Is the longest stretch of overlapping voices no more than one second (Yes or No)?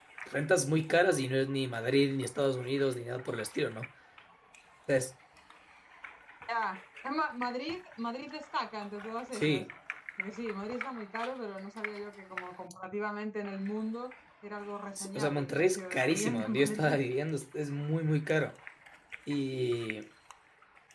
No